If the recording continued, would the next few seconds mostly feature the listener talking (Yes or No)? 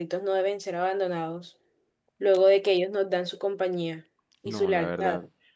Yes